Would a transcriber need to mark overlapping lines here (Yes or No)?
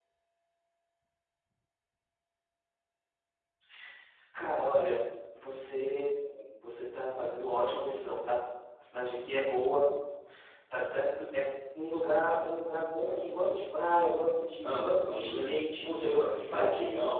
Yes